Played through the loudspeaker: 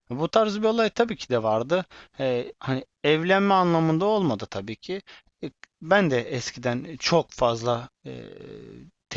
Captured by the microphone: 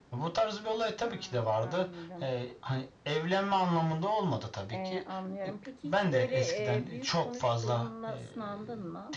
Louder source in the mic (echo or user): echo